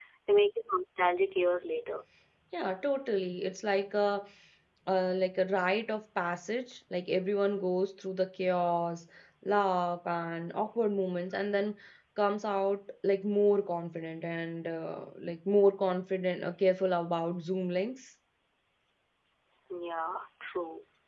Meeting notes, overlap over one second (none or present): none